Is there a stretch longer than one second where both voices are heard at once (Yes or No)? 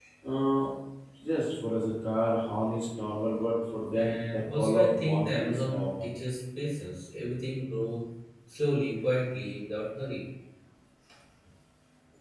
Yes